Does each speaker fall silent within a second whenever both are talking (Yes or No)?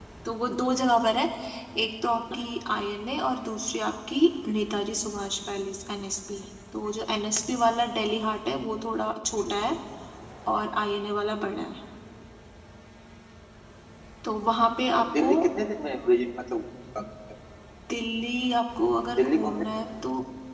Yes